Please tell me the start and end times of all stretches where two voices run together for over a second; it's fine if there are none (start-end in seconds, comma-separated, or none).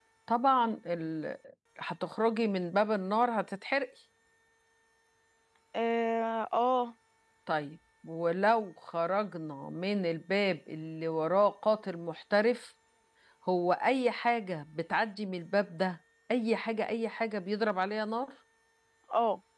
none